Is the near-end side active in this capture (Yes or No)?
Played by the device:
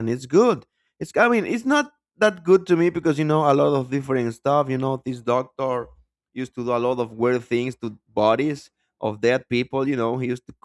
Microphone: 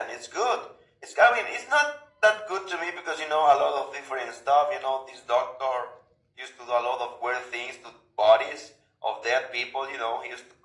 No